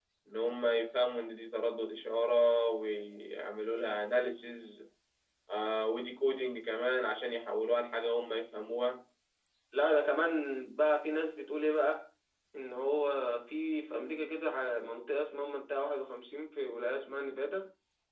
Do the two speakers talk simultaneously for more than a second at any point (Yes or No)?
No